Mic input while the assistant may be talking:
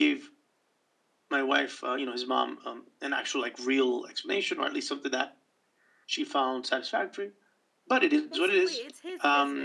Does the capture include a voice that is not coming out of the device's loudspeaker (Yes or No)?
Yes